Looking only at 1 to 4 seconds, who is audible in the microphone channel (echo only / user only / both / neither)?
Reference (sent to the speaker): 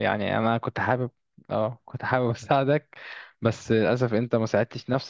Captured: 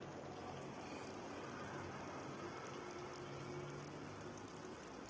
neither